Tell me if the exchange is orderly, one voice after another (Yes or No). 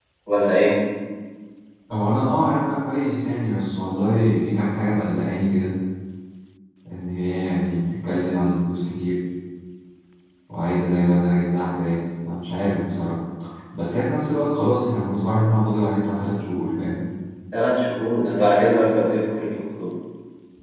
Yes